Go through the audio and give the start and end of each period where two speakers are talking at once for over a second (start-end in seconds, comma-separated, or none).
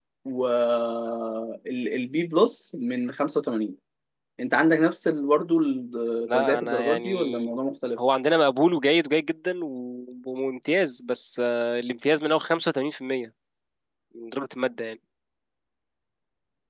6.3-7.5